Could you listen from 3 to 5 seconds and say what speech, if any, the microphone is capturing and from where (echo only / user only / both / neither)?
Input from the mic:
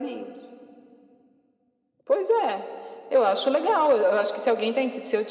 echo only